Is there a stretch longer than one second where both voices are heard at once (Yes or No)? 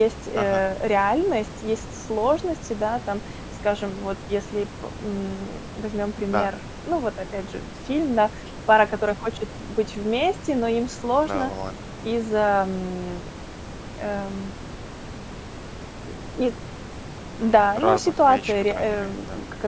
Yes